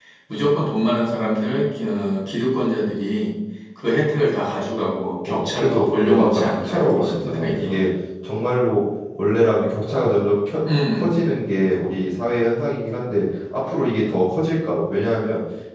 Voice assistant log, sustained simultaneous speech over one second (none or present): present